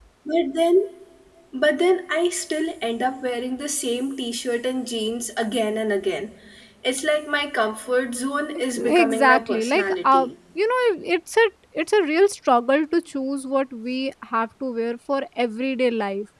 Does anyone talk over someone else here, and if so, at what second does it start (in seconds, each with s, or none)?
8.6 s